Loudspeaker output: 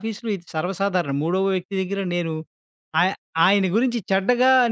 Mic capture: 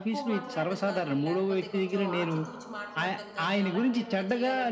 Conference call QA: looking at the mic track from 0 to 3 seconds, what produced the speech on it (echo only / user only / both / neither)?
both